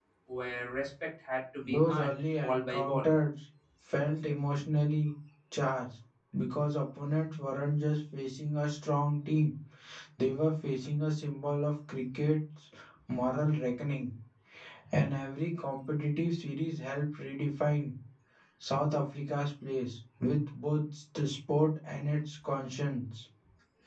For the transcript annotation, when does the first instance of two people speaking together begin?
1.6 s

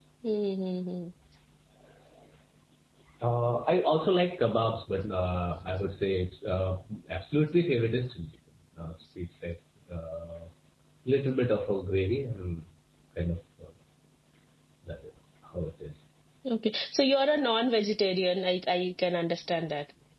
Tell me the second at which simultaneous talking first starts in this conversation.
none

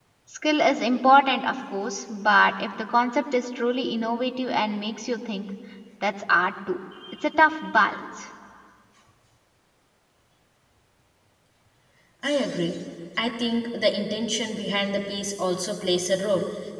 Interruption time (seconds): none

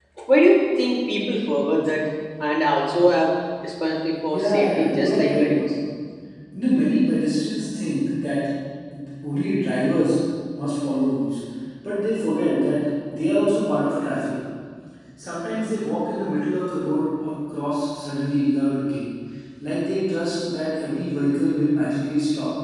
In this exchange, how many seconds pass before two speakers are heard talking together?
4.3 s

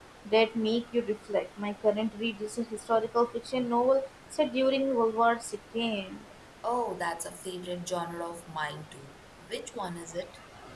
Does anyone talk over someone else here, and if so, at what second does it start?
none

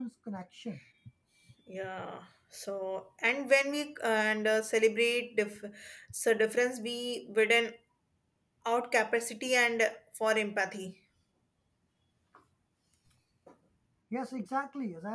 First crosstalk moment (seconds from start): none

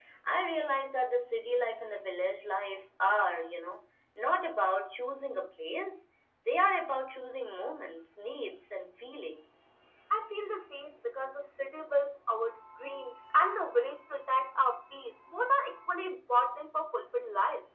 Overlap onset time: none

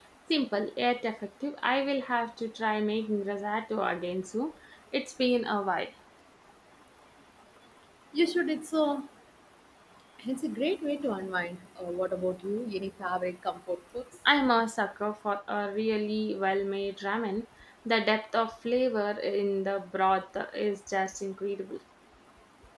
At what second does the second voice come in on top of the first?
none

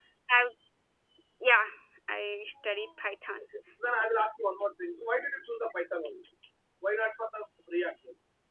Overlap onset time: none

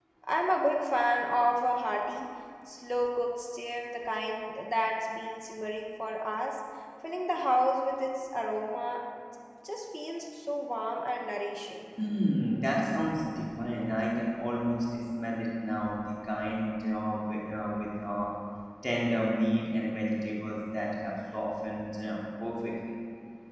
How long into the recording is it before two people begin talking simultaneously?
none

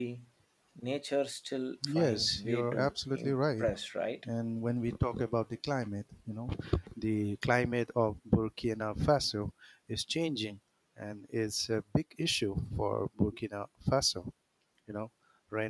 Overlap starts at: 1.8 s

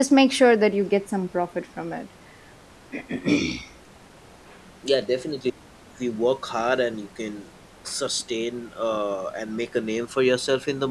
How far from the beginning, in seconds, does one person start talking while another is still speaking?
none

